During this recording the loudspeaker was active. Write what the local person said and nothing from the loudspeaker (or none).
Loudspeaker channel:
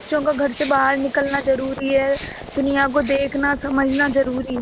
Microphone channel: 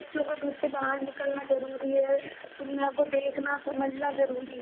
none